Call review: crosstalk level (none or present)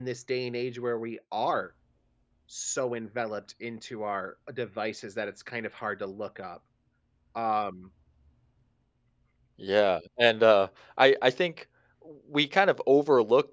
none